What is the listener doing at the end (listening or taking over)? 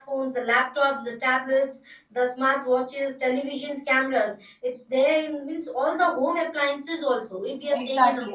taking over